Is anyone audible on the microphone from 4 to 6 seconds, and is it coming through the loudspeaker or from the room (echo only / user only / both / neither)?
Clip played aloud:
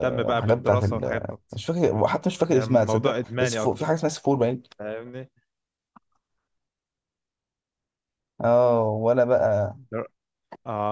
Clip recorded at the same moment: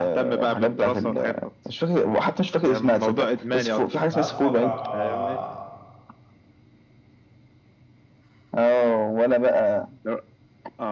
both